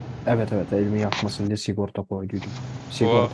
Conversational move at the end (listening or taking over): listening